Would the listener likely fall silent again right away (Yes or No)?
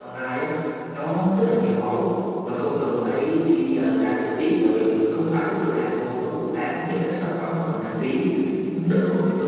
Yes